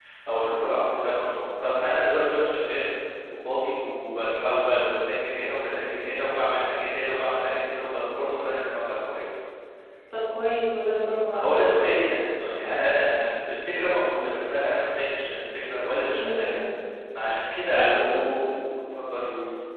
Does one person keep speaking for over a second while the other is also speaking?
No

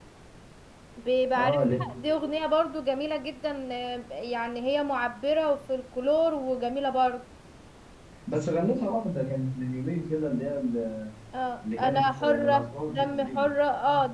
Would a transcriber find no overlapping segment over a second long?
No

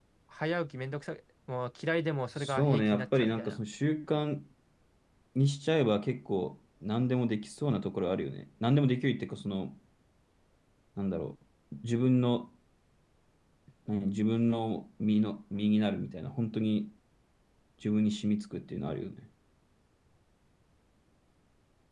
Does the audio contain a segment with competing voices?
Yes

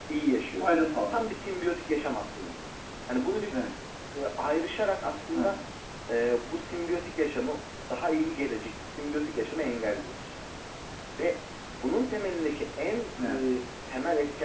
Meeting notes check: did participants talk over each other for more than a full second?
No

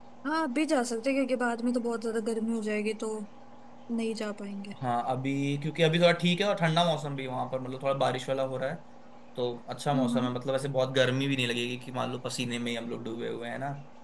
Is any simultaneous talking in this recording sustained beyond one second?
No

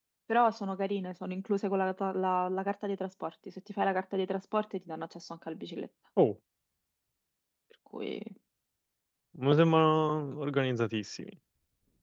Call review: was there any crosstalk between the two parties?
No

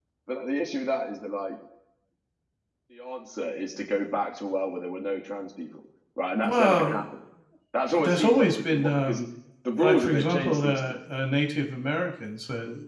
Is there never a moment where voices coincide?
No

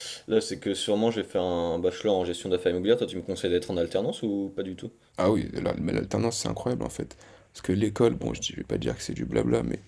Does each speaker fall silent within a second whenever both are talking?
Yes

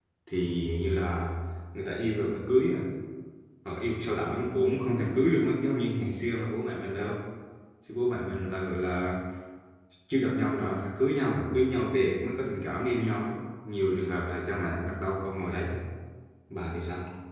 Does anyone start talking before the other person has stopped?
No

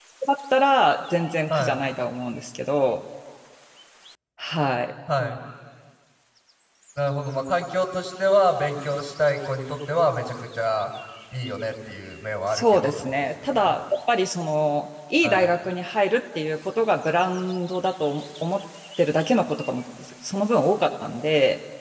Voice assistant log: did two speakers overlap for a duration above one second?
Yes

